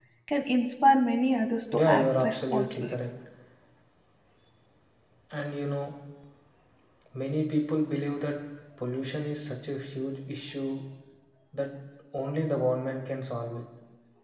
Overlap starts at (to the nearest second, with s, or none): 2 s